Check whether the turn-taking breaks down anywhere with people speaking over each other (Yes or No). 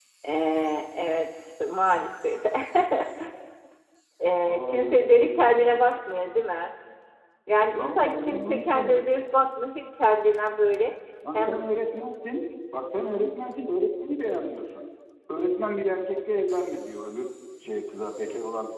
Yes